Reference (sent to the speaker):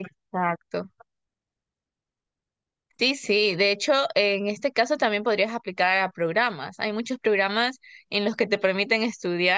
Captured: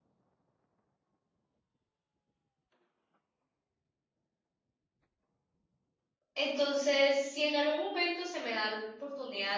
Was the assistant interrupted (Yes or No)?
Yes